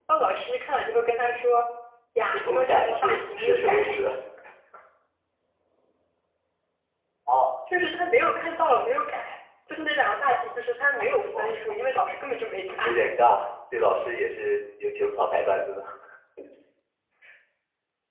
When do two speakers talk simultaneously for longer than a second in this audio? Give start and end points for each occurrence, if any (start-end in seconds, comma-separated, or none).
2.3-4.0